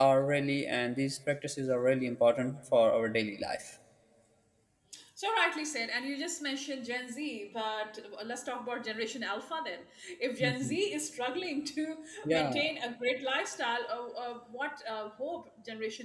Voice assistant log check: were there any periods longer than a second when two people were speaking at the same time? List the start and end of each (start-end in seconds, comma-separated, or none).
none